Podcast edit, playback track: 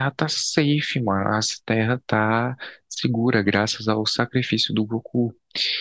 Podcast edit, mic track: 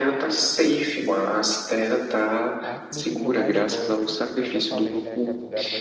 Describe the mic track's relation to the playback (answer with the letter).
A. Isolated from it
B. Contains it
B